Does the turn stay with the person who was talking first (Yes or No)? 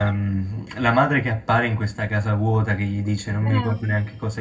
Yes